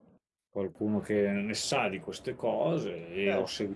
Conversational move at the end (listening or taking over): listening